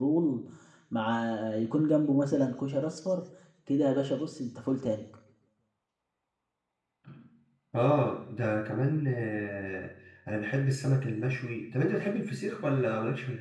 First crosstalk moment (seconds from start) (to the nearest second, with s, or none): none